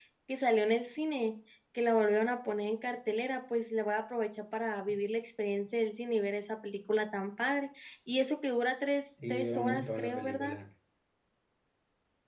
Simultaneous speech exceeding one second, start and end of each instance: 9.3-10.6

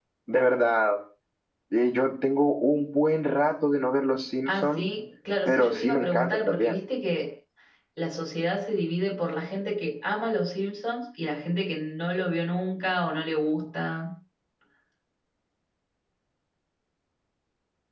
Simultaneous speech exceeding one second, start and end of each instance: 5.5-6.8

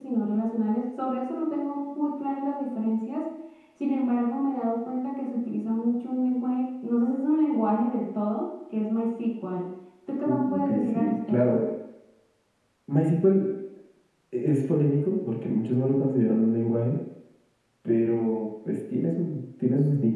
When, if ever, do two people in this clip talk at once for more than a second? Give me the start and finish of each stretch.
10.2-11.6

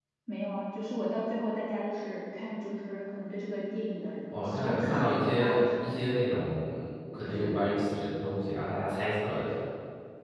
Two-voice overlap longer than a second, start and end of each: 4.4-6.1

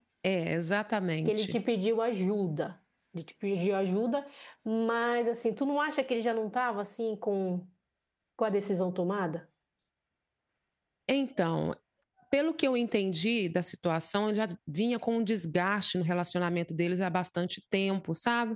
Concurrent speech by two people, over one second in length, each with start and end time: none

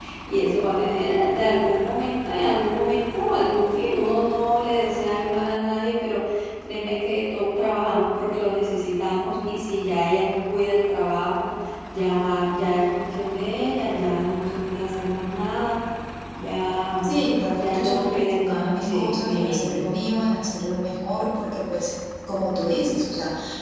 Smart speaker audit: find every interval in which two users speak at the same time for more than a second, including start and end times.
17.5-19.7

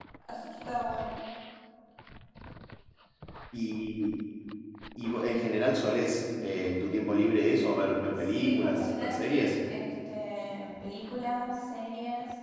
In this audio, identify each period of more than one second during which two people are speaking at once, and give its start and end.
8.2-9.5

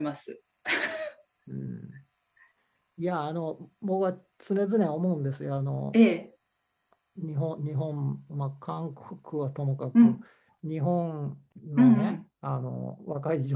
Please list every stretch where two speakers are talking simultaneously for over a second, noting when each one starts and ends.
none

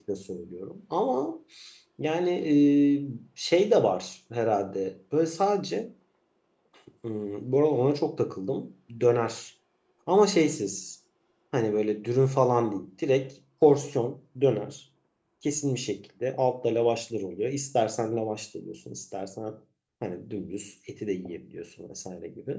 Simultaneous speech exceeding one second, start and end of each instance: none

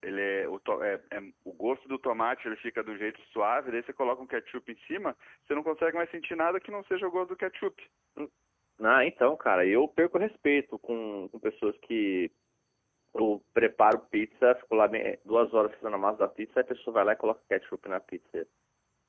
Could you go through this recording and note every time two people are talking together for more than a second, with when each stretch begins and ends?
none

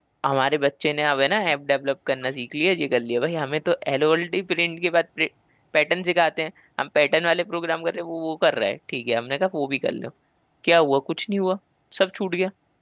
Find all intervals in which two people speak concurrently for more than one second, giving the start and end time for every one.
none

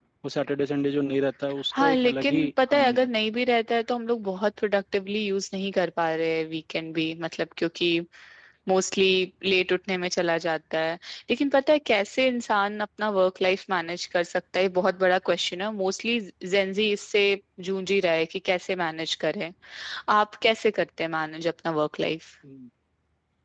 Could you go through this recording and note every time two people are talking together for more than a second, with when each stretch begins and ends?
1.8-3.1

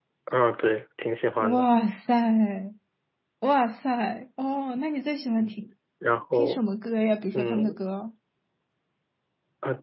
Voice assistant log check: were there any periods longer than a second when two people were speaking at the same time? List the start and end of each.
none

